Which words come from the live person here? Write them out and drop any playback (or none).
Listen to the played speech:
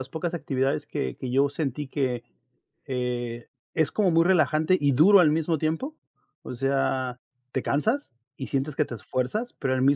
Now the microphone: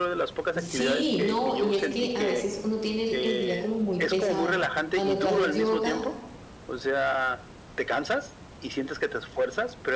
sí, no, y es que a veces uno tiene el el día como muy pesado. Cuando tú haces yoga,